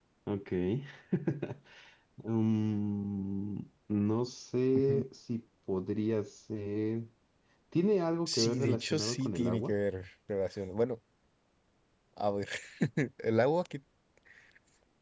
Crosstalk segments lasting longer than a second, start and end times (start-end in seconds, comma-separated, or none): 8.3-9.7